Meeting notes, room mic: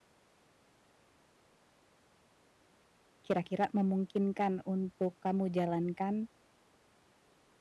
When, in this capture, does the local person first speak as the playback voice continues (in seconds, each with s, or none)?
3.2 s